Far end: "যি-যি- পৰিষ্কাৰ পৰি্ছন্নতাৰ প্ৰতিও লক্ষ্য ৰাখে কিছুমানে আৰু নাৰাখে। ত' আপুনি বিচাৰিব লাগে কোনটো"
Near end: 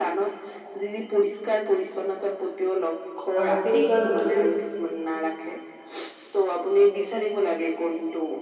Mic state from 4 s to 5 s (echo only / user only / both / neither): both